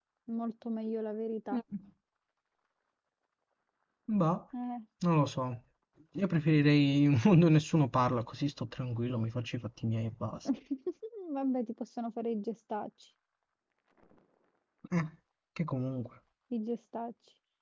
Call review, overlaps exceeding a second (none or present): none